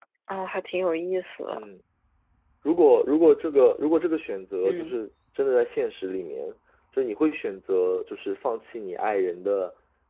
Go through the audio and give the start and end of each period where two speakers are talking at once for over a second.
none

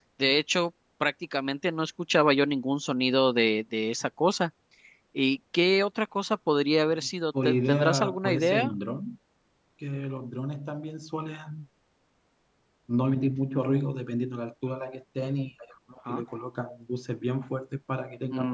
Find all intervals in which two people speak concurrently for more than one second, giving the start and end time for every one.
7.4-8.7

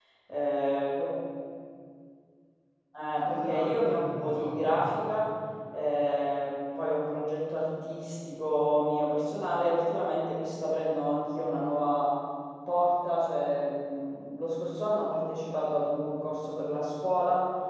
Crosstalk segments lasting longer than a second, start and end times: 3.2-4.8

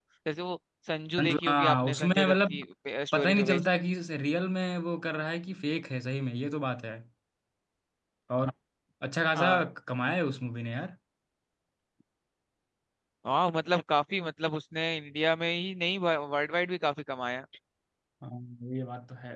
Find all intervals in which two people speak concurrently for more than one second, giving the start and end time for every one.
1.2-2.6

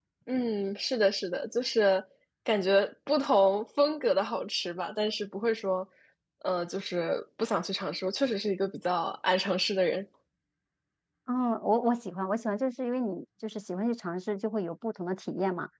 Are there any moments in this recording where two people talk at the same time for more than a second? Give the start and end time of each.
none

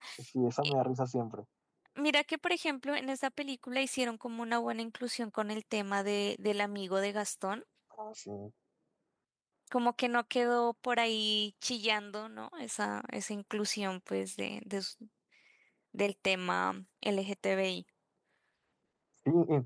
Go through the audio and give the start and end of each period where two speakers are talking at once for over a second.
none

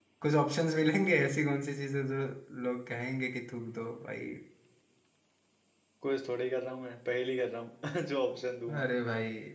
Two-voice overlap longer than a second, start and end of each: none

